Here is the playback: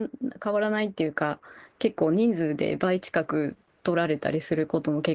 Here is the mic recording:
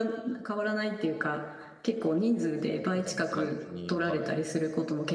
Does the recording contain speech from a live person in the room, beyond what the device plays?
Yes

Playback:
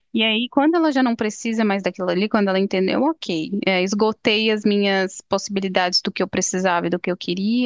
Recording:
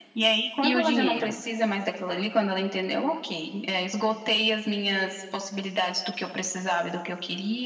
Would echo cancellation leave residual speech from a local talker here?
Yes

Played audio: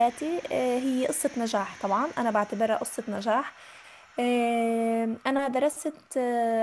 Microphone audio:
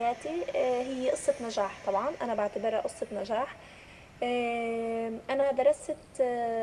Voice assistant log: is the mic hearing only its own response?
Yes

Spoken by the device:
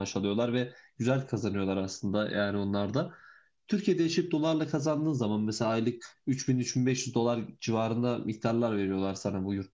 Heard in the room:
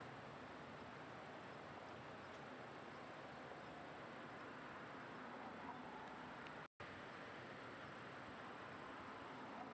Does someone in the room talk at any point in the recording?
No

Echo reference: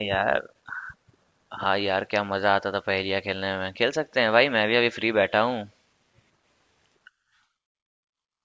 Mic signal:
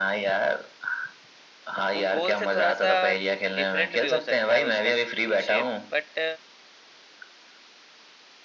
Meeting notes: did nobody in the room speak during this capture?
No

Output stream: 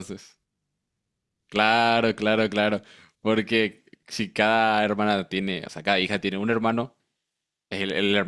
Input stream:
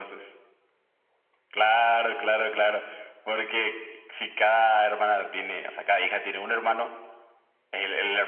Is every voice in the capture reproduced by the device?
Yes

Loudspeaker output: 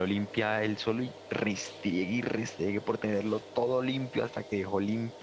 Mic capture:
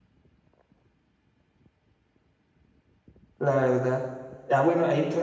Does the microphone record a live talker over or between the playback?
Yes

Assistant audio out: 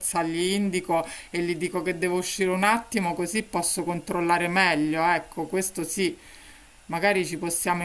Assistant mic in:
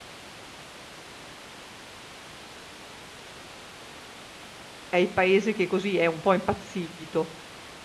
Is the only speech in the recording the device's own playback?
No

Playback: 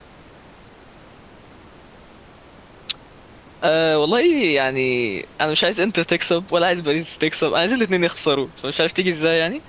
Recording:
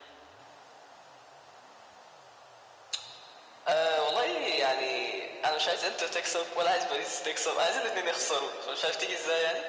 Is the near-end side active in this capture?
No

